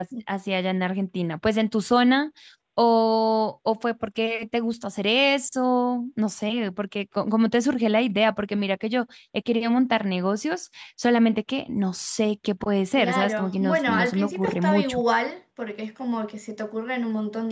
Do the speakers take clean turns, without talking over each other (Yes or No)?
No